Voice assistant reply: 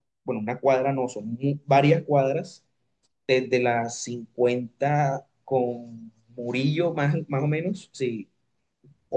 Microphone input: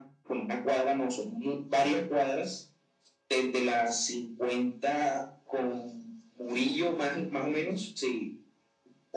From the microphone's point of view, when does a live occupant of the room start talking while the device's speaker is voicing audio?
none

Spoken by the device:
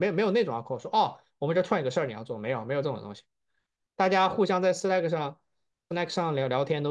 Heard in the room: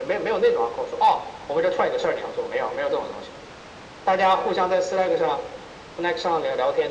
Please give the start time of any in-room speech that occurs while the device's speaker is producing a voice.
none

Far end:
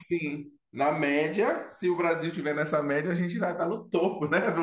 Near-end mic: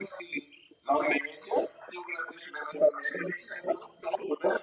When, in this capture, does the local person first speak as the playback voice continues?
none

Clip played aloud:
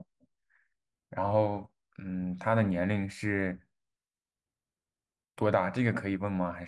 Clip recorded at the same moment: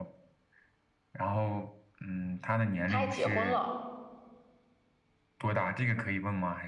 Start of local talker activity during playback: 3 s

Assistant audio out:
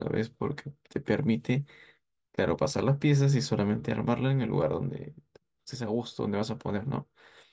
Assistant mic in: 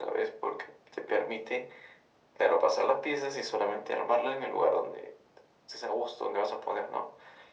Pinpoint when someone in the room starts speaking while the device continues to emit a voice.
none

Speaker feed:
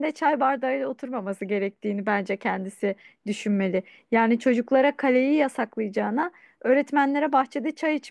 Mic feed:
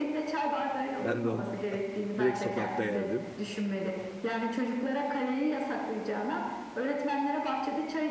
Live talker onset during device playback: 1 s

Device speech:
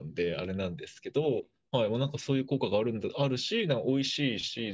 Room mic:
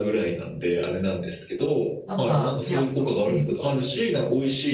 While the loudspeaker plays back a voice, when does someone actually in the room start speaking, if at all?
2 s

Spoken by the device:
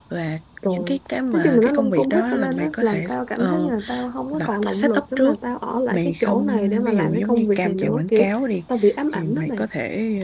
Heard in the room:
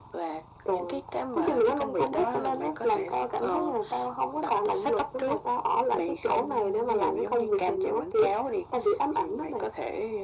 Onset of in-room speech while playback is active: none

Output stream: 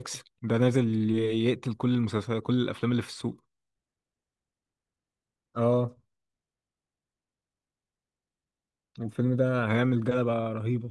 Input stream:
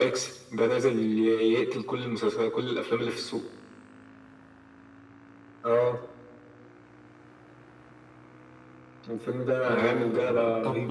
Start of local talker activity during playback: 10 s

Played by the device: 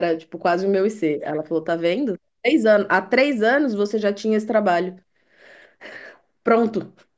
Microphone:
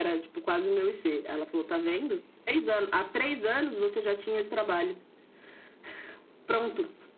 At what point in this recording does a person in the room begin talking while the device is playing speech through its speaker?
none

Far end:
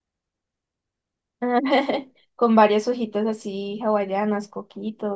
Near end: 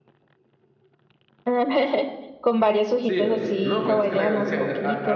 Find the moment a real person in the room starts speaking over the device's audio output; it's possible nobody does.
3 s

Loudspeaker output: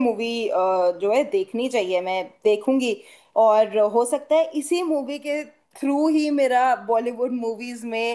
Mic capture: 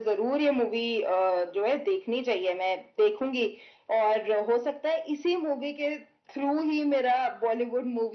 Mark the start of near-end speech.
none

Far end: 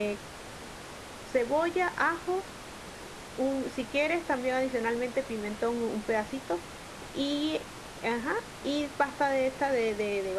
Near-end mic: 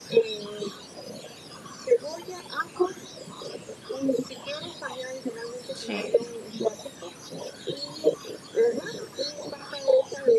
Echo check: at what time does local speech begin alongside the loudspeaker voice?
6 s

